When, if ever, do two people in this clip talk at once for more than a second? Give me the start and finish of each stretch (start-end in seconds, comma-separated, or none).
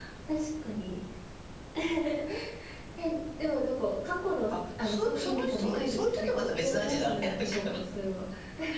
4.5-7.7